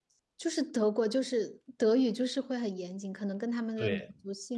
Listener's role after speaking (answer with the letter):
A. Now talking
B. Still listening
A